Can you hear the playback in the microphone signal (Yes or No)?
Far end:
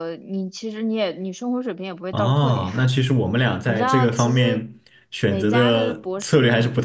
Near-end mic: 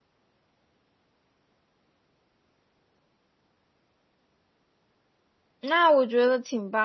No